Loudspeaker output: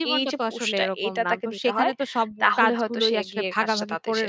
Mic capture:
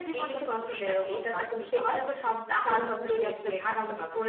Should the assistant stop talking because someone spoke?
No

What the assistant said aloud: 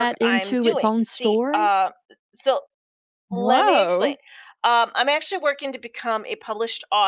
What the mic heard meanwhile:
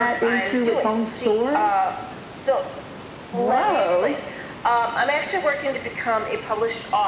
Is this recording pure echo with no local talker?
Yes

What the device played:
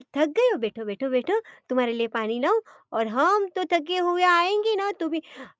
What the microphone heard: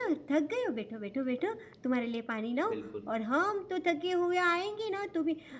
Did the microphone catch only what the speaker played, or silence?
No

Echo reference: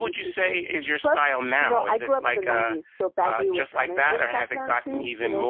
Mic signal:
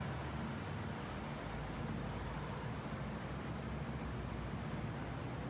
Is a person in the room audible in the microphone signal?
No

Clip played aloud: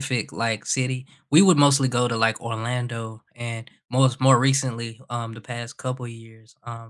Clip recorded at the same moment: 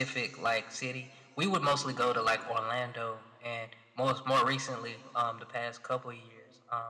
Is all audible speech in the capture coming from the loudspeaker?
Yes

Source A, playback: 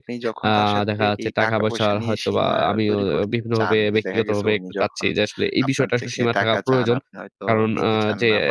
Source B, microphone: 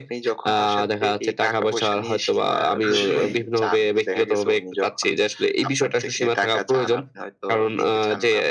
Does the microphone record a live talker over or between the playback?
Yes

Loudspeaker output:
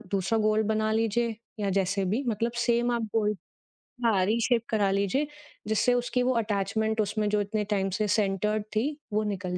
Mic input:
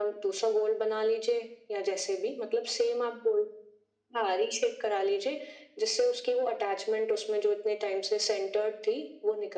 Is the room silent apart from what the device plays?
Yes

